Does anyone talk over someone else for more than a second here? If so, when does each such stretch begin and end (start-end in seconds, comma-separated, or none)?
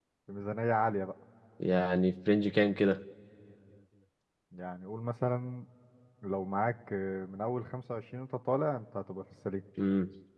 none